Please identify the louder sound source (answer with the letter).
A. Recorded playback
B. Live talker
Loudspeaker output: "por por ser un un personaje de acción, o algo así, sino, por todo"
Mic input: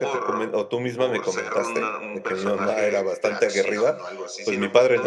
B